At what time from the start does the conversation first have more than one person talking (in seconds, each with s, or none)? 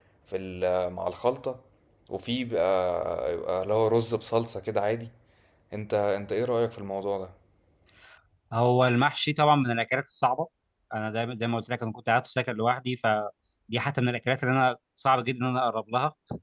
none